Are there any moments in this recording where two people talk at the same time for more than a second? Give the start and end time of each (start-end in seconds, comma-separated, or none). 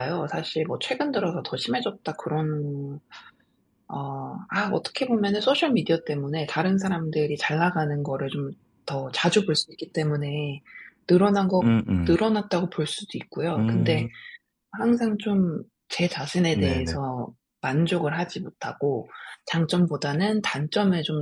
none